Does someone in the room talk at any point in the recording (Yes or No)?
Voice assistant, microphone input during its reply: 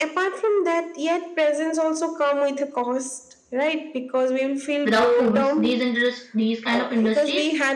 Yes